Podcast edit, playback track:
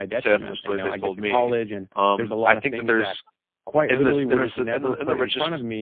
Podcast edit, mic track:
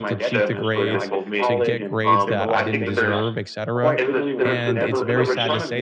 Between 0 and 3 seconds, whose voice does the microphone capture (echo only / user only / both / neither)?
both